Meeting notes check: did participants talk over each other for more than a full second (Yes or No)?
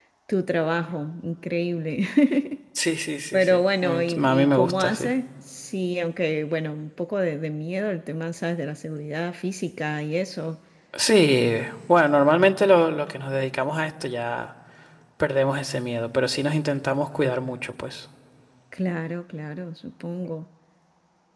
Yes